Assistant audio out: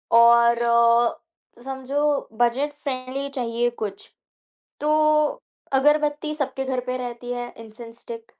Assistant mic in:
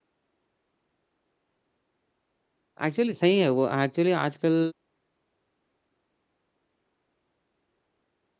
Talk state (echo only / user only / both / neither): user only